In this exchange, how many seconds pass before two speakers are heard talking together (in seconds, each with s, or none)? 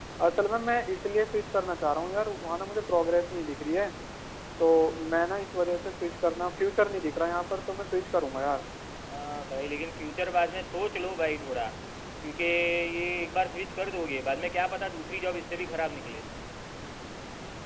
none